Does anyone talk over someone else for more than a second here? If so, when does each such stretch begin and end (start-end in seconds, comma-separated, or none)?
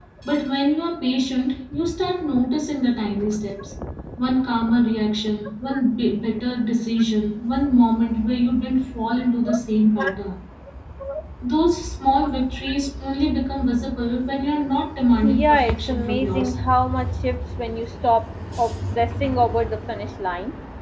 15.3-16.5